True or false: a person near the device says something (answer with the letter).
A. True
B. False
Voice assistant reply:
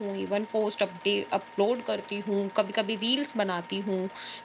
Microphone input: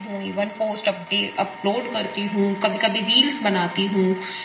B